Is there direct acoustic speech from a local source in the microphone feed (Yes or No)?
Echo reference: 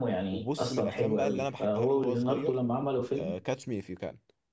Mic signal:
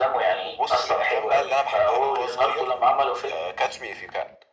No